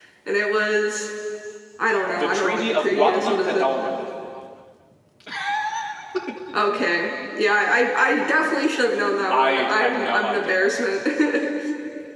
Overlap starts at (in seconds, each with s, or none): 2.1 s